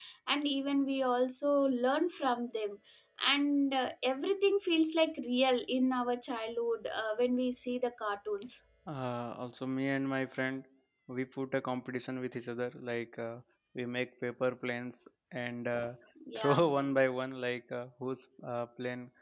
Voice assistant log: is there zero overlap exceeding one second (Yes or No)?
Yes